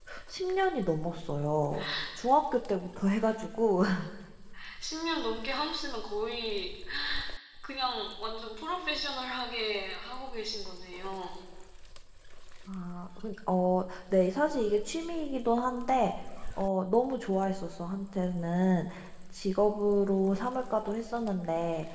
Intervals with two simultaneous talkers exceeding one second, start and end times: none

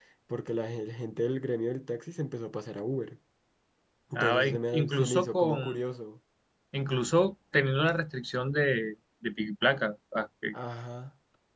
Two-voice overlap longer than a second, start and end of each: 4.1-5.6

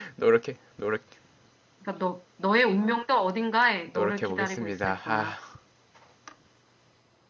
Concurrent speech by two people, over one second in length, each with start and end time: 3.9-5.3

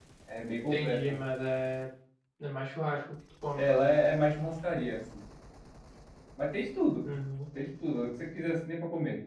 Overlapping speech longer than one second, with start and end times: none

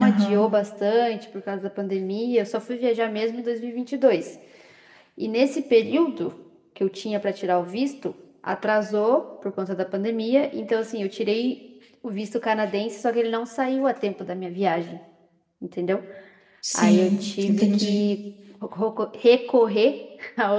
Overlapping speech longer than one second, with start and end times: 16.7-18.0

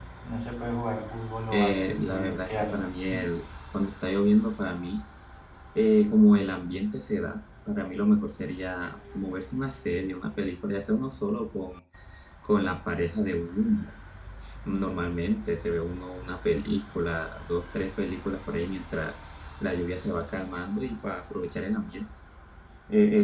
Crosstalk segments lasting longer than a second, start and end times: 1.5-2.8

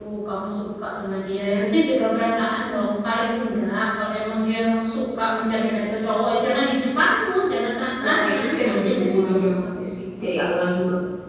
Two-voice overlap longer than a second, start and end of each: 8.0-9.3

